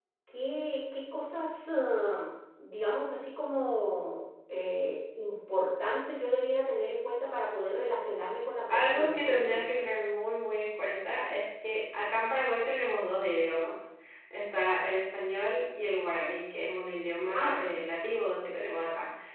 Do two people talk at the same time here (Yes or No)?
Yes